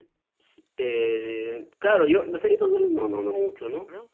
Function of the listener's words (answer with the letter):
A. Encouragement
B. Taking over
A